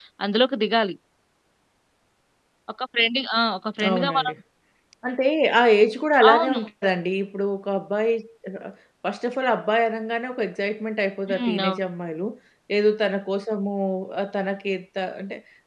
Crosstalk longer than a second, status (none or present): none